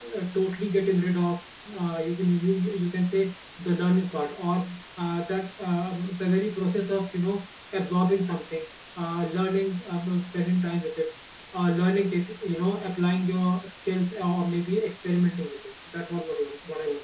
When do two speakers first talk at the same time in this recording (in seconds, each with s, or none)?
none